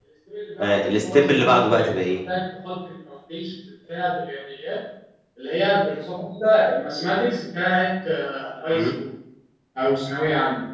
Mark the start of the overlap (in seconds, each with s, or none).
0.6 s